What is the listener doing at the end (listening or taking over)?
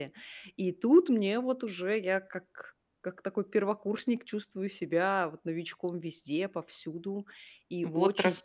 taking over